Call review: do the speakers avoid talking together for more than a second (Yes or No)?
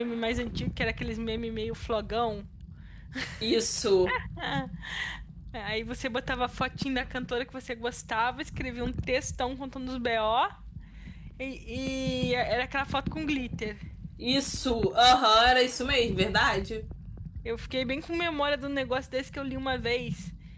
Yes